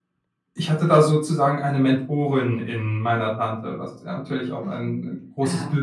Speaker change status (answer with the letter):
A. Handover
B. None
A